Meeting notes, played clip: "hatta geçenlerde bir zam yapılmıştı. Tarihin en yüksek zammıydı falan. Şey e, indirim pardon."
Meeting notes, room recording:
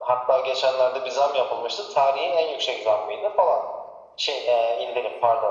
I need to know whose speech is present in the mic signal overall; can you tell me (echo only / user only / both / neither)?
echo only